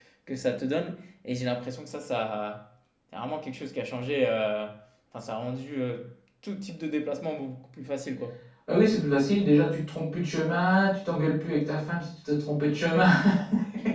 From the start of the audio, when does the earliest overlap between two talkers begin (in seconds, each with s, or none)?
none